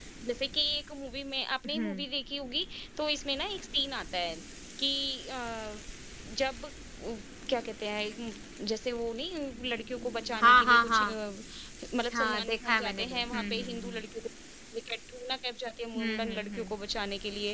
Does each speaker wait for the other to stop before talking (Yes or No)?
No